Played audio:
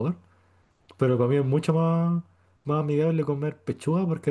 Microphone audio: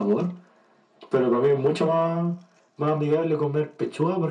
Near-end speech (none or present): none